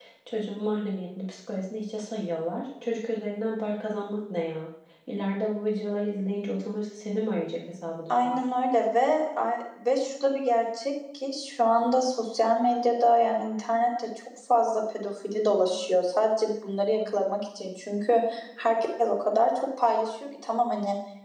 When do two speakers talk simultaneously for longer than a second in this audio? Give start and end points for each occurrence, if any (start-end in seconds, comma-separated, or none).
none